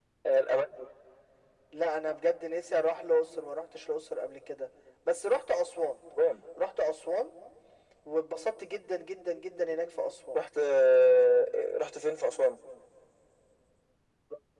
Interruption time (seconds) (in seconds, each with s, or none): none